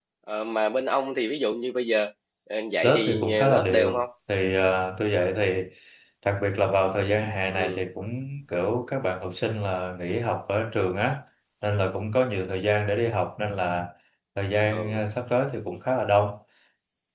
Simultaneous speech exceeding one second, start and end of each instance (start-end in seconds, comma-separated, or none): 2.8-4.0